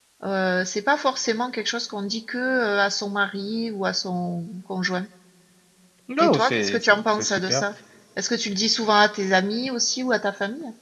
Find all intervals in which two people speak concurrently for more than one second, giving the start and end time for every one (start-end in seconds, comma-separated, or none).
6.2-7.6